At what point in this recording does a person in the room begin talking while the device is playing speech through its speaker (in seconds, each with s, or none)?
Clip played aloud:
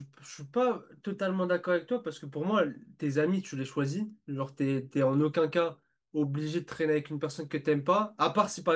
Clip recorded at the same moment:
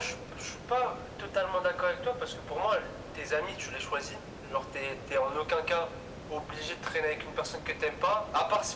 none